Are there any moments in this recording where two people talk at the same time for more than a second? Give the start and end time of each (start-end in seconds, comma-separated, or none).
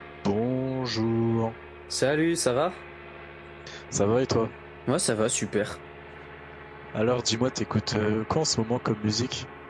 none